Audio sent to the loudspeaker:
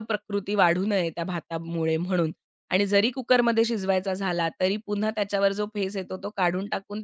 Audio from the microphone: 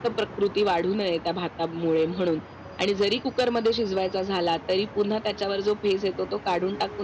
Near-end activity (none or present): none